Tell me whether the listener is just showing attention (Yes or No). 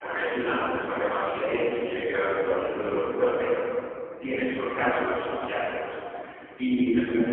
Yes